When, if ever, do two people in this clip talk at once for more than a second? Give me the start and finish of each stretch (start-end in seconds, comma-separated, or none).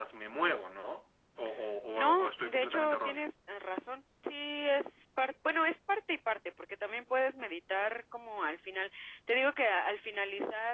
1.9-3.3